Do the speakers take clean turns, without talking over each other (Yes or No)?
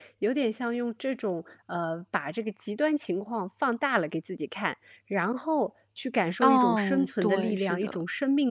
No